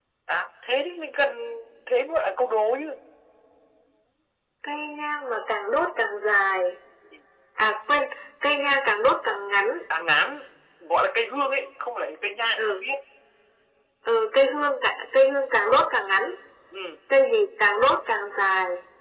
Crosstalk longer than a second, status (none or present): none